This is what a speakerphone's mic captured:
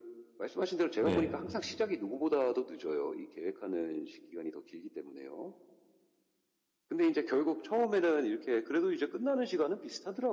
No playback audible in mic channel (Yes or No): No